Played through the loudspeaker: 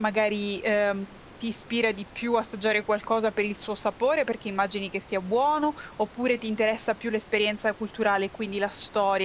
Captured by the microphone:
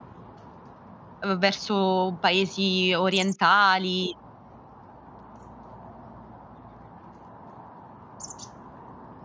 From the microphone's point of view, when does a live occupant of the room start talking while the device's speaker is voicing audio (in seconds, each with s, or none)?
1.2 s